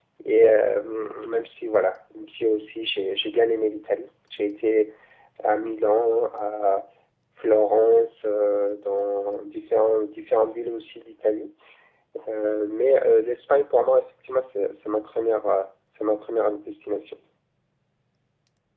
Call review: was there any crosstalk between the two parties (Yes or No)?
No